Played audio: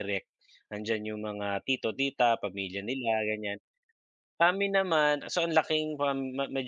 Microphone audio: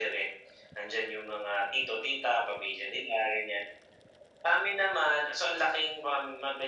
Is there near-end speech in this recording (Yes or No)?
No